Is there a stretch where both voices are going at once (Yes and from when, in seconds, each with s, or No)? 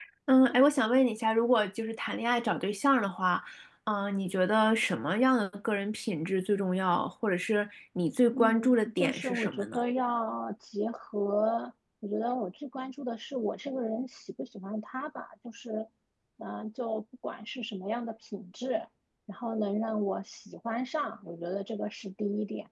Yes, from 8.3 s